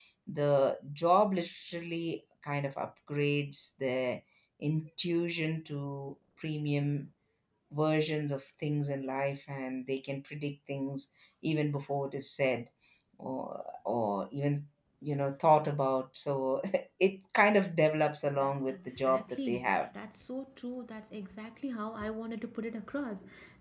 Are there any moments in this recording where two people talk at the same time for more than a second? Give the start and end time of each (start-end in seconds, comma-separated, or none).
18.4-19.7